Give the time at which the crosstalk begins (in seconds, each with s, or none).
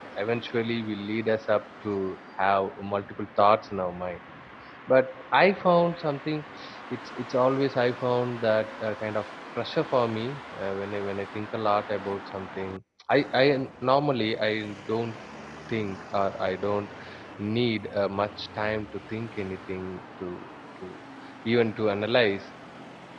none